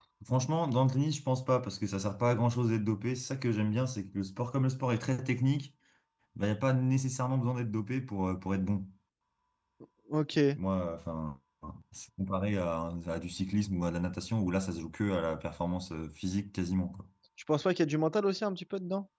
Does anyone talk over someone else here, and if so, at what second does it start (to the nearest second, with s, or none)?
none